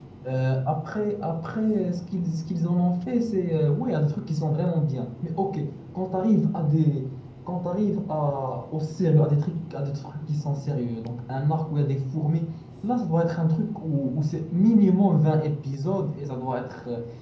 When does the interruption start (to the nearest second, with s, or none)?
none